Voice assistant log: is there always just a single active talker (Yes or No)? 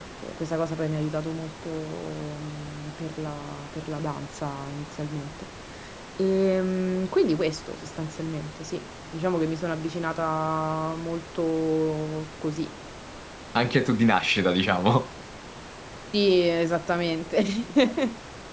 Yes